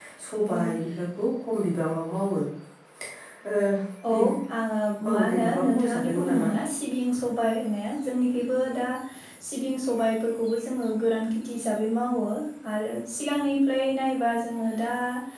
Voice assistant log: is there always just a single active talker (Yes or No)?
No